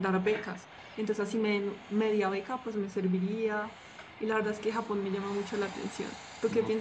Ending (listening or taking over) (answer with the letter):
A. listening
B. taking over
B